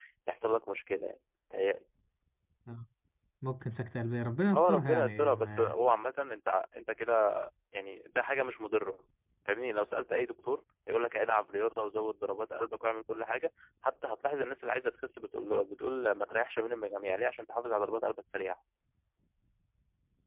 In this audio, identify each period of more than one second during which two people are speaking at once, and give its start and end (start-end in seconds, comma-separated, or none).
4.5-5.7